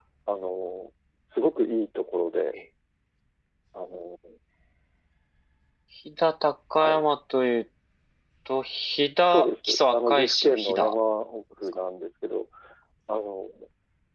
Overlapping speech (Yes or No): Yes